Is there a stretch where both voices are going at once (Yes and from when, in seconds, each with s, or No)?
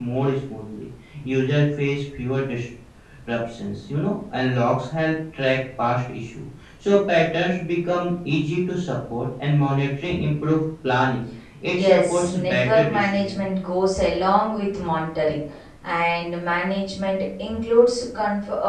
Yes, from 11.6 s